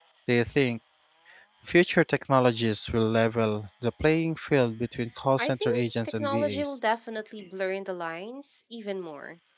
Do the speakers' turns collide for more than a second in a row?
Yes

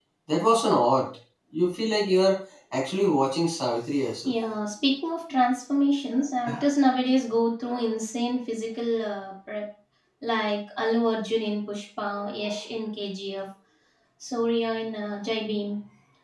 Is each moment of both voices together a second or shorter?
Yes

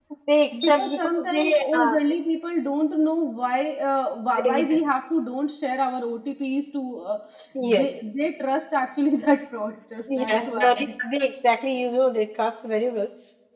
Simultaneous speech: Yes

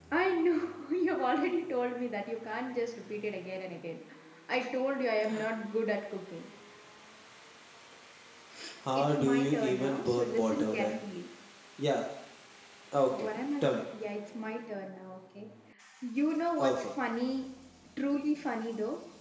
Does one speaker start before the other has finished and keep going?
Yes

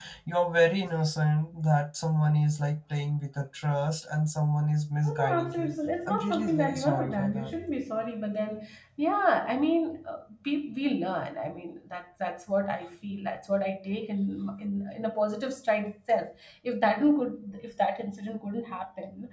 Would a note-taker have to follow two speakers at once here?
Yes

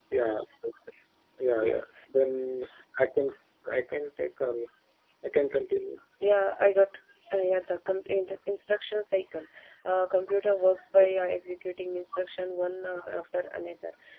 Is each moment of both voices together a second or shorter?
Yes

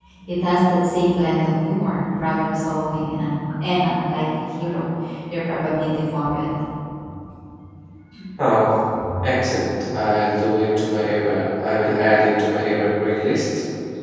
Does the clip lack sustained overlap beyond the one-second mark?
Yes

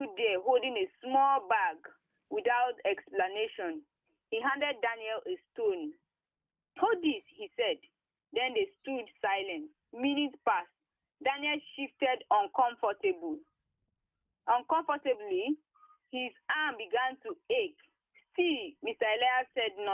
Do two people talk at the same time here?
No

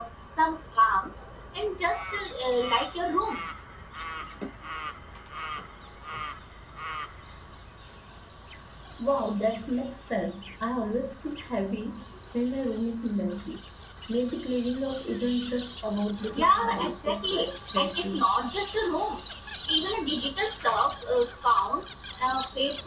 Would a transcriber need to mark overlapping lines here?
Yes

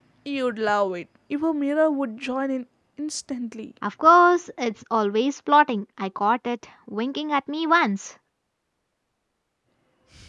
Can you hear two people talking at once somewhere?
No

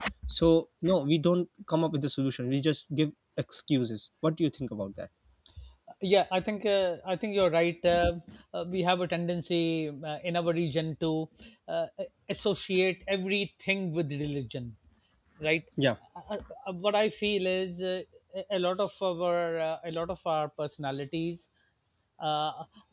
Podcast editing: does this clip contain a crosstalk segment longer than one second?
No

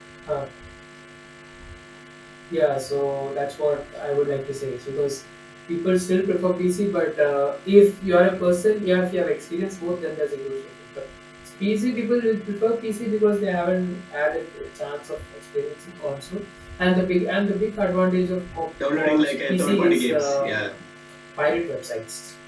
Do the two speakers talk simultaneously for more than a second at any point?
Yes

